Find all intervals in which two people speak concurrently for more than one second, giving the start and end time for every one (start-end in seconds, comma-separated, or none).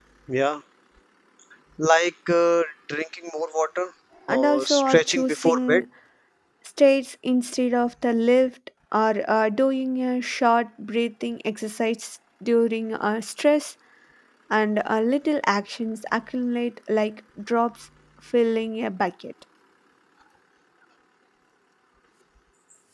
4.3-5.8